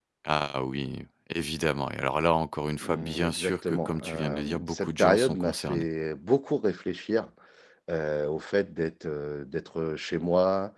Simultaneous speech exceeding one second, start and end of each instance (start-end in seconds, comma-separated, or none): 2.8-5.9